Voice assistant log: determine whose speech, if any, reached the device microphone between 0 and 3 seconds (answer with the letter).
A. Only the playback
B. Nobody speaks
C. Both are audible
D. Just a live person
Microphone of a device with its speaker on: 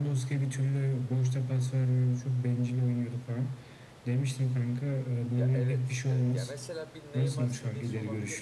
A